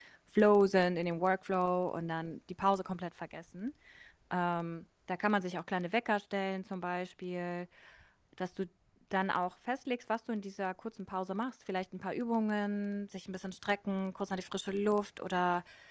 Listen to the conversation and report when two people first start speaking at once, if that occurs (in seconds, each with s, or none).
none